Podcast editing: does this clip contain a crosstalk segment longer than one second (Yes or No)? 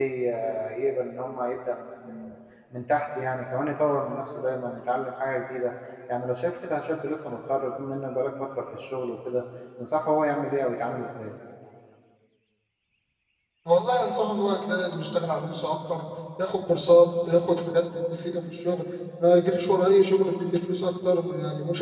No